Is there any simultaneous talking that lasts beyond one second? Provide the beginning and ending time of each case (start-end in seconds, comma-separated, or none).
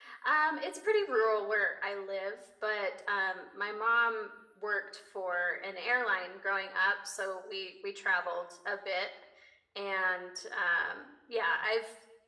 none